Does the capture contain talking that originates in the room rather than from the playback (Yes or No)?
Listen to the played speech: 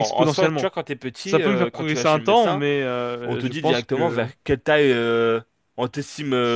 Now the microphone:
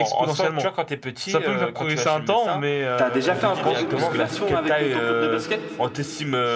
Yes